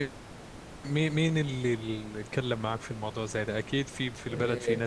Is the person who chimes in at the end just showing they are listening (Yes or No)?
No